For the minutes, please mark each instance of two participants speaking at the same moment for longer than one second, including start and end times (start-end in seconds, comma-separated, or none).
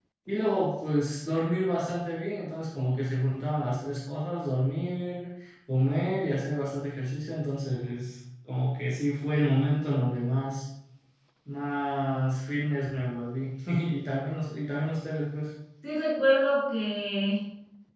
none